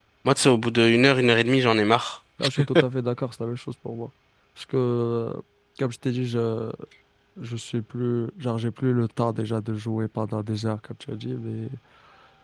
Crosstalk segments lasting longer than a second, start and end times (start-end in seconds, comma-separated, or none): none